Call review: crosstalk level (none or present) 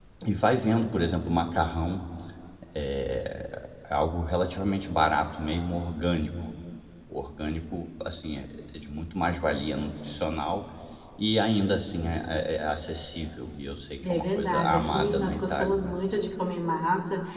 present